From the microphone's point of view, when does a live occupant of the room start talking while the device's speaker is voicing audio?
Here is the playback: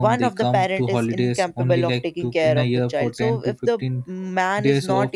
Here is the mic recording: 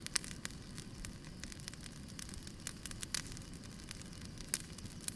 none

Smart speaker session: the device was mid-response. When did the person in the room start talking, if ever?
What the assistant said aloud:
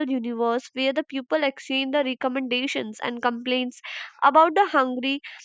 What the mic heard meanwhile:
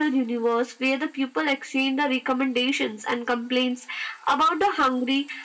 none

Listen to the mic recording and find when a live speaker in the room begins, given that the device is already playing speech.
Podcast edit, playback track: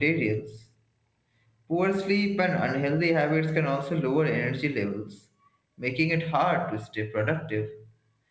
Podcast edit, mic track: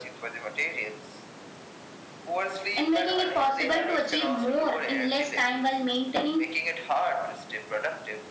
2.8 s

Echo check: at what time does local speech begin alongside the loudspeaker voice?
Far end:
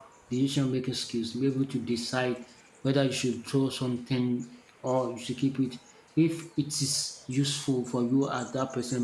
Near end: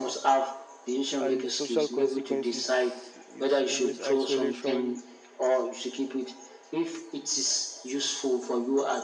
1.2 s

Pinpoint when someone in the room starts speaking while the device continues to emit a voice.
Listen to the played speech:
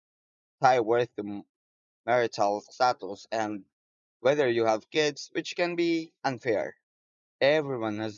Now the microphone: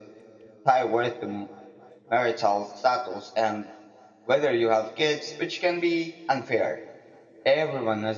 none

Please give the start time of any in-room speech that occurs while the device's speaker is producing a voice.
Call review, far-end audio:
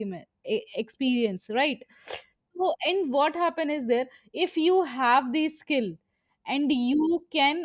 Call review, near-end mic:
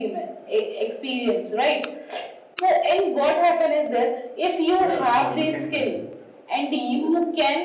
4.8 s

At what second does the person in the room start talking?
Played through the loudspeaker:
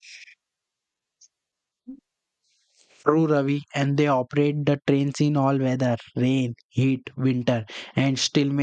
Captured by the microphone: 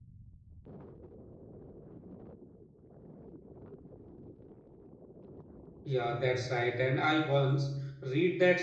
5.8 s

